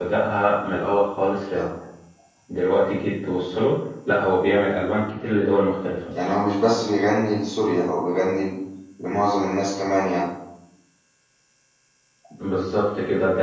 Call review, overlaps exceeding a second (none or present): none